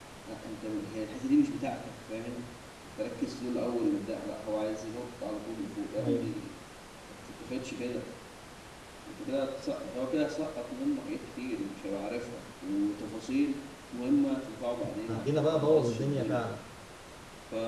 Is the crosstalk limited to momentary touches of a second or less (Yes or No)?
No